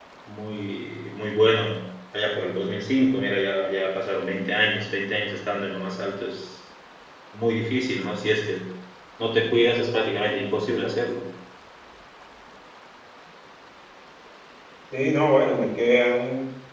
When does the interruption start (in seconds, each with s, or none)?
none